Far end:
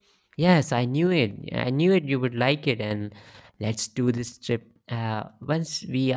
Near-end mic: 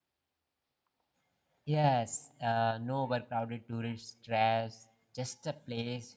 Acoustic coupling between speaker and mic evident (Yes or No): No